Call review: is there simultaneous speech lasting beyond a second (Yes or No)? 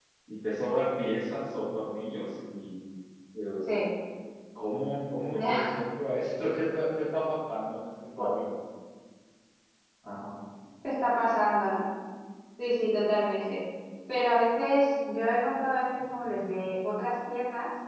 No